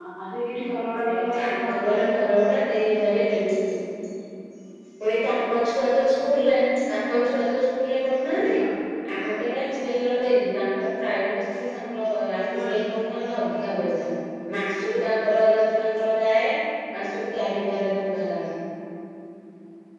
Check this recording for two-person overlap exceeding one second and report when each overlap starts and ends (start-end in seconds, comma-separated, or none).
0.7-2.2